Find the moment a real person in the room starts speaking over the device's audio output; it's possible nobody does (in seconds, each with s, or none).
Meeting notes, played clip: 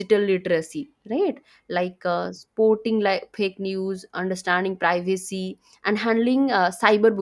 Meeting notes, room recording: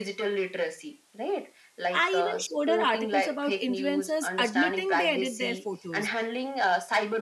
1.9 s